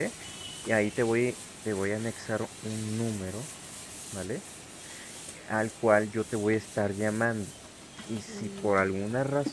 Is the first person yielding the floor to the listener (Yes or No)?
No